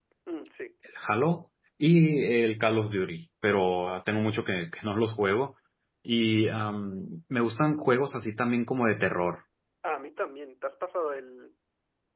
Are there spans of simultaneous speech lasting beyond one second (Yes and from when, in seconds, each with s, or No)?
No